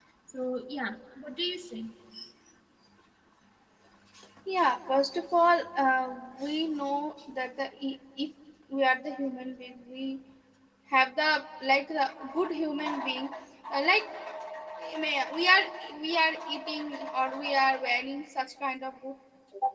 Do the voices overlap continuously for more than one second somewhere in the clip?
No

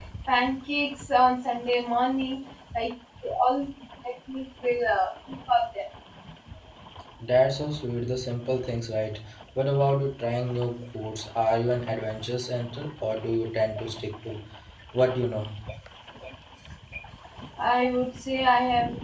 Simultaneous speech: No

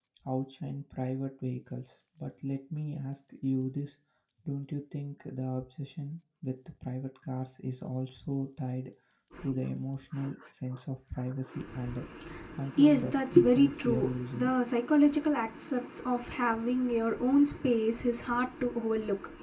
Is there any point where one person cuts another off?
Yes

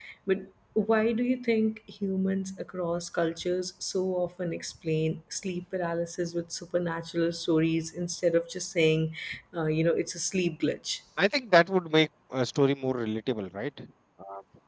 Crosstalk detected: No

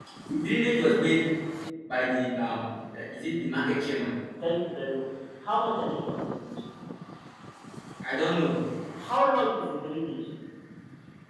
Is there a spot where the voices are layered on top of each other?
No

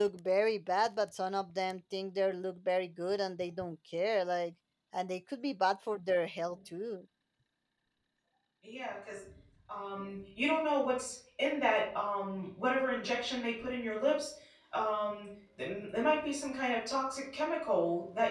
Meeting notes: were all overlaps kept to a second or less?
Yes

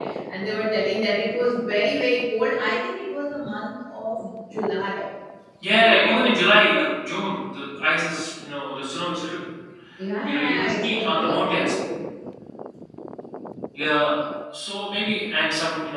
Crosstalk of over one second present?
Yes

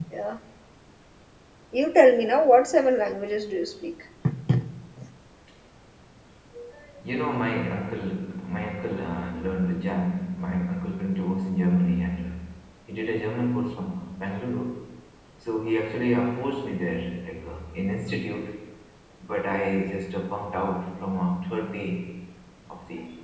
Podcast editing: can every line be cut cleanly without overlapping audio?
Yes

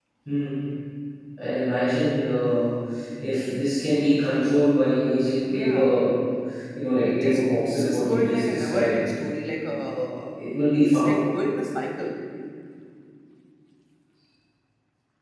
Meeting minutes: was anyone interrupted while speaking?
Yes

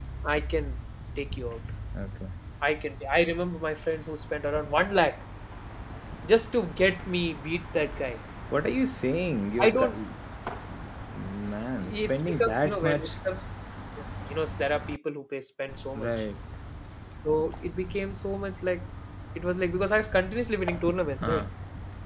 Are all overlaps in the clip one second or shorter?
No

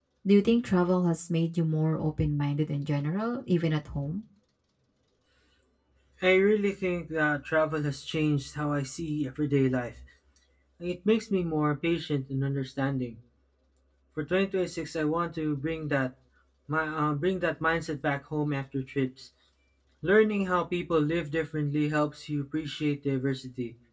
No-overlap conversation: Yes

